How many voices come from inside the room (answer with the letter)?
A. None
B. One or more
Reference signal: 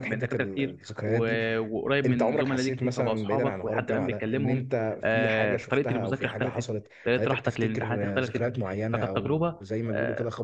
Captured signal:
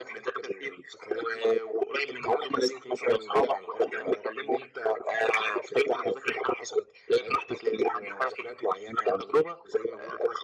A